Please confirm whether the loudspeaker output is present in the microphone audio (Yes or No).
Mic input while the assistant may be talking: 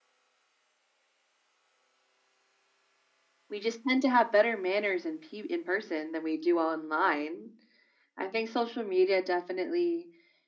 Yes